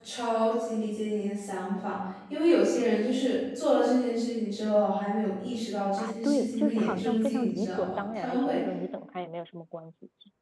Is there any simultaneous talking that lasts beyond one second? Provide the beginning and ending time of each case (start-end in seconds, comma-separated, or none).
6.0-8.6